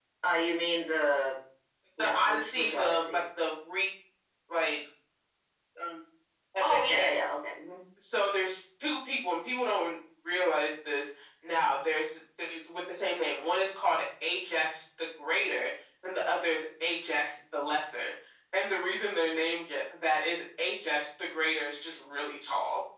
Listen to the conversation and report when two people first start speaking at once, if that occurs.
2.0 s

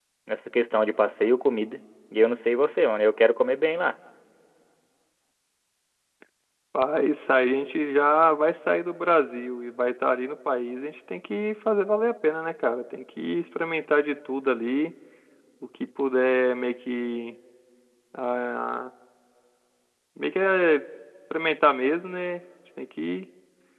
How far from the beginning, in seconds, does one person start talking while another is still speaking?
none

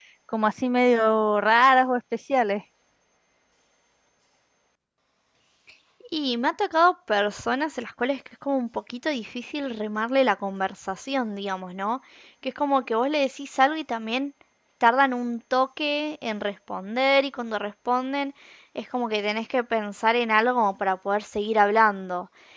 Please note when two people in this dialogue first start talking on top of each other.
none

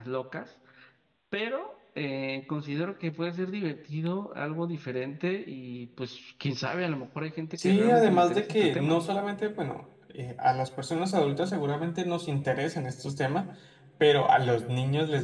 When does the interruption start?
7.6 s

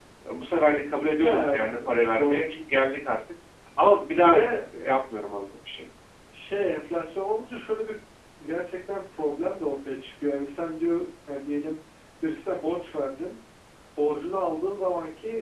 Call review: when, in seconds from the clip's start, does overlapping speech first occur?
1.2 s

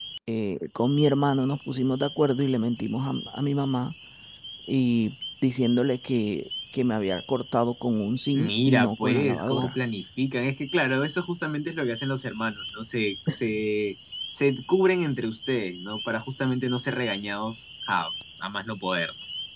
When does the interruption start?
8.3 s

